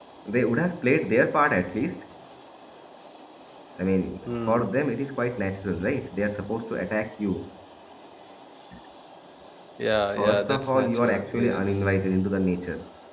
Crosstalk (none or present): present